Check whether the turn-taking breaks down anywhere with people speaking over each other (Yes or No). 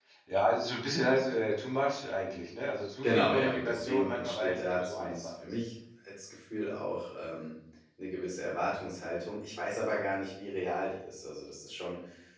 Yes